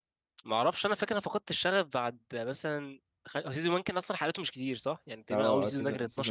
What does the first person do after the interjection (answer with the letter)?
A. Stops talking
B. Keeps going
A